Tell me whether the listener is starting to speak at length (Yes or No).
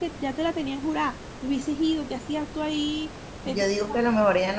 Yes